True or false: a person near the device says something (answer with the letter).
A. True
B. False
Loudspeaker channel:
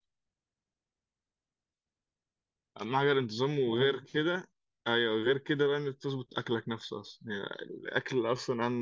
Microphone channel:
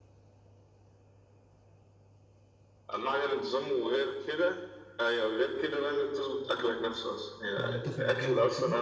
A